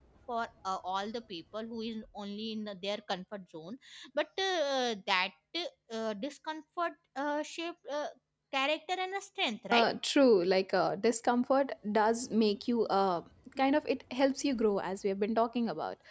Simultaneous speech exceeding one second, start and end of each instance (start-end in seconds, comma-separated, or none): none